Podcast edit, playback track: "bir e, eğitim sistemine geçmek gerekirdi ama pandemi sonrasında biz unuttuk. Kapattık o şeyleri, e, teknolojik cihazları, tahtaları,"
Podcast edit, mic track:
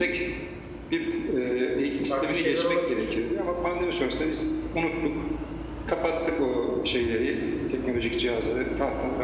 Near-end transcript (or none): Farklı şeyler olabilir.